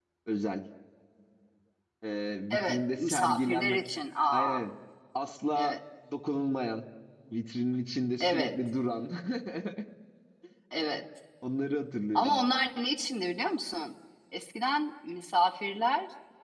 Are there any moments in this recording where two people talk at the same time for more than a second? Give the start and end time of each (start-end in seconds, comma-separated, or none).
2.5-3.8